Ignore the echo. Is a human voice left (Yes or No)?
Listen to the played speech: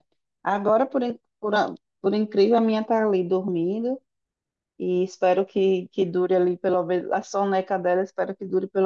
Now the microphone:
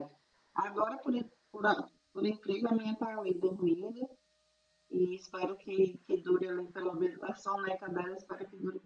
No